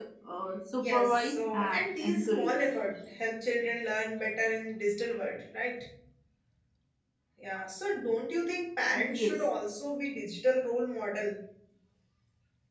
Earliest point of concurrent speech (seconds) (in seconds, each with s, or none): 0.8 s